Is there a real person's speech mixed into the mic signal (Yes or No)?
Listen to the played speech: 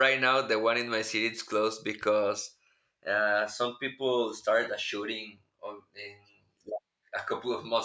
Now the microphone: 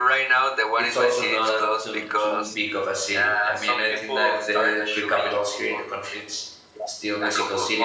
Yes